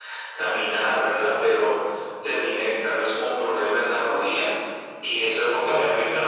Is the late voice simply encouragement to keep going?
Yes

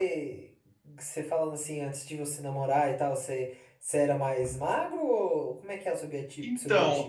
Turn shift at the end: Yes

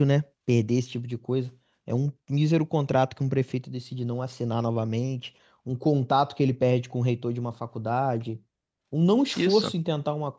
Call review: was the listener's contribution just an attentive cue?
Yes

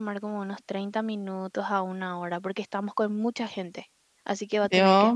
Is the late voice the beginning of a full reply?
Yes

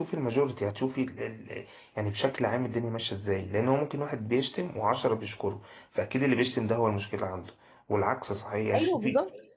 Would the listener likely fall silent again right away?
Yes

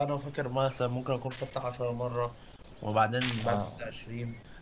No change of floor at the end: Yes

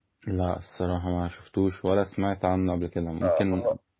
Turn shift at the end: Yes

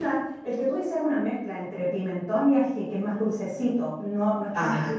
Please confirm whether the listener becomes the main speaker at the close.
Yes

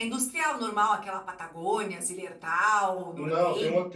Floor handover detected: Yes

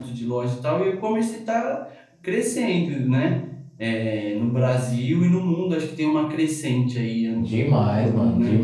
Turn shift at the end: Yes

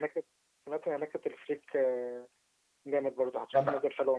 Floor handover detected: Yes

